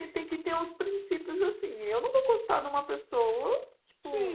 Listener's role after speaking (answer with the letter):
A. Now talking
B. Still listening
A